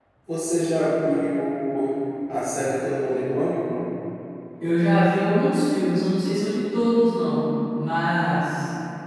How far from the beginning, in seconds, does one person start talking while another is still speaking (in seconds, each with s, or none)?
none